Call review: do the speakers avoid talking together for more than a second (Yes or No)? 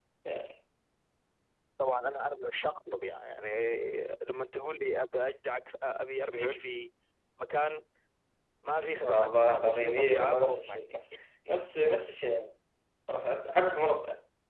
No